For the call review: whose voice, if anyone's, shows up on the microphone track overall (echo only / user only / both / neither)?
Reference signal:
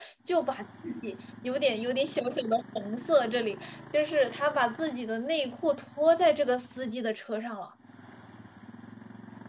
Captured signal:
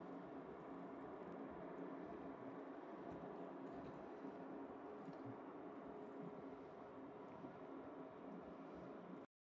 neither